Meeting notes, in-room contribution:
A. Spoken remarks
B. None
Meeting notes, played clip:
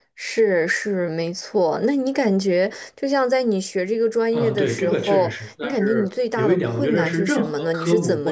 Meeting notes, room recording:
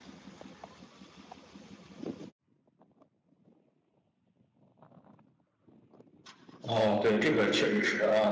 A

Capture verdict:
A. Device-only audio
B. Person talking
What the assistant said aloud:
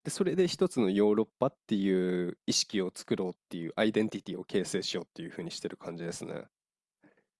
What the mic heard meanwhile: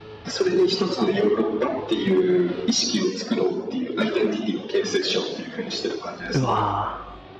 B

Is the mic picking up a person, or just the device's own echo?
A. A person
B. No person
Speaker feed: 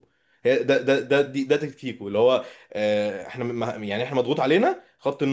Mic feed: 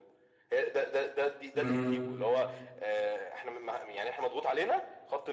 A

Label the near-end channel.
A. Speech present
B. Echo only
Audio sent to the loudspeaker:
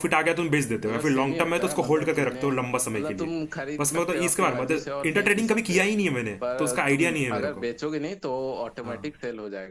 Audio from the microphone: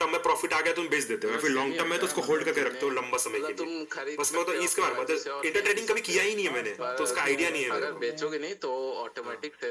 A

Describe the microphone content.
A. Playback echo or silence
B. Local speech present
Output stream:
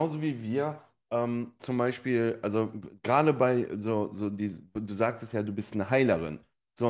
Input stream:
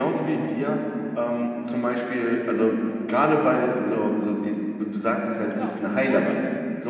B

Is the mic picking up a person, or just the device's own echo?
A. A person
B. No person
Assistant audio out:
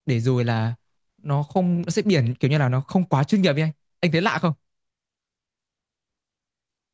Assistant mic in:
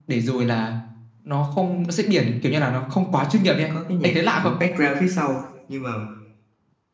A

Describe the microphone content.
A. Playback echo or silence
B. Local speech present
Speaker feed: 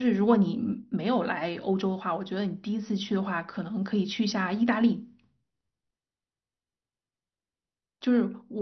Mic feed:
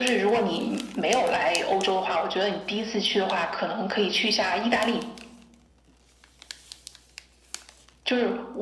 A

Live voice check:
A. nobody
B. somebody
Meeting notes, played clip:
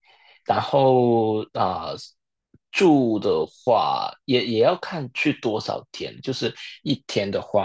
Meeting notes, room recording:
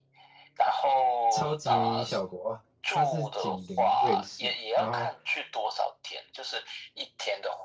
B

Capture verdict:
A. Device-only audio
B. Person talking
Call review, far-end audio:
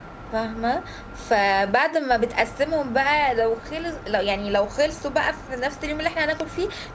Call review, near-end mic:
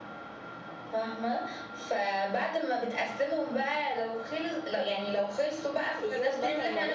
B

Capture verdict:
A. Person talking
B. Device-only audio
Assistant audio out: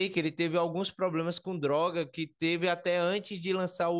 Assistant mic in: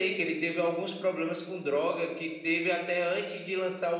B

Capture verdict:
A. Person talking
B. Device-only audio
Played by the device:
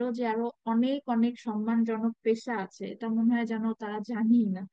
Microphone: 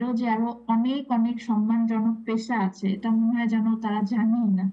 B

